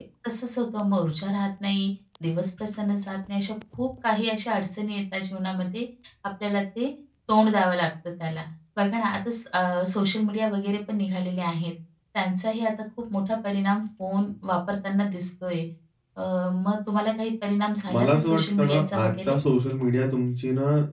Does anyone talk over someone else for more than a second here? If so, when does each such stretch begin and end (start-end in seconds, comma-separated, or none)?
17.9-19.4